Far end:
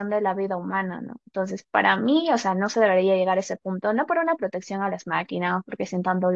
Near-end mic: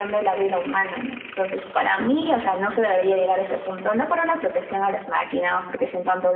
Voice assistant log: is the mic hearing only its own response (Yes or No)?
Yes